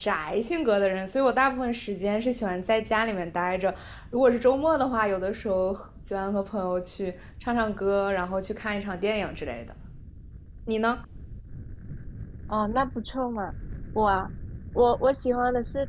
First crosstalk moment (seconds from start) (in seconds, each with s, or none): none